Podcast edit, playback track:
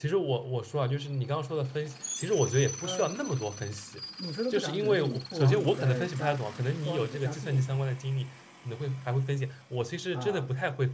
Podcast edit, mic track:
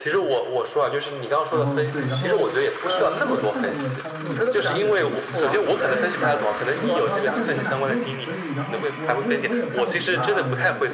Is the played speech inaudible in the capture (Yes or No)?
No